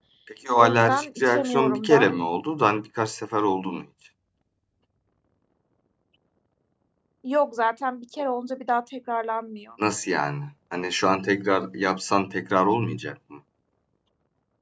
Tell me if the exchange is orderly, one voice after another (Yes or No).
No